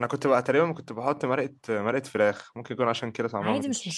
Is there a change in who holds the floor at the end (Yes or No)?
Yes